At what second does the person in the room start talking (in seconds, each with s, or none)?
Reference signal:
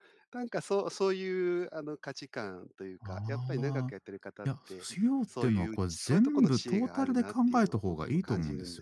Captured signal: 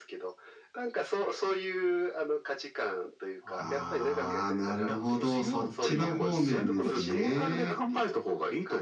3.6 s